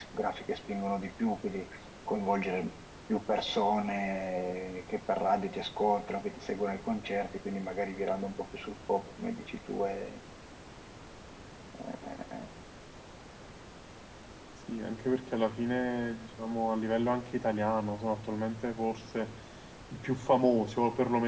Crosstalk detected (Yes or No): No